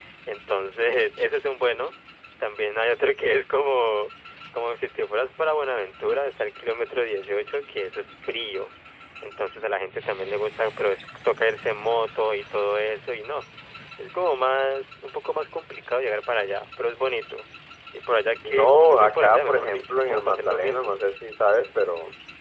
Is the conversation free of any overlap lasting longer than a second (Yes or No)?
No